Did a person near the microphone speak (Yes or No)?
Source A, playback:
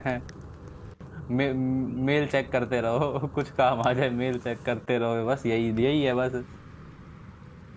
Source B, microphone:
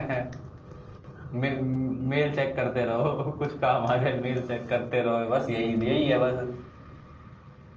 No